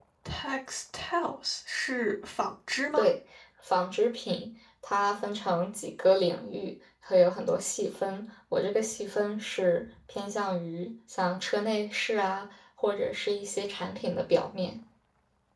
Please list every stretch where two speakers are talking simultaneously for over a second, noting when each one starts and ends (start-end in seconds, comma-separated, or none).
none